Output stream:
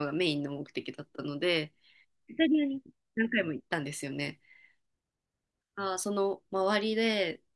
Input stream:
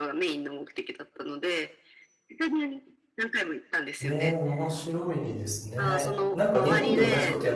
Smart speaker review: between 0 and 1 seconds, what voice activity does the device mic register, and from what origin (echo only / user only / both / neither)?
echo only